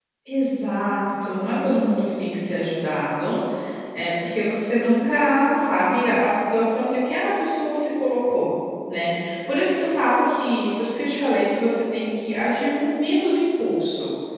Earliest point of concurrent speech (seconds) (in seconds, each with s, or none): none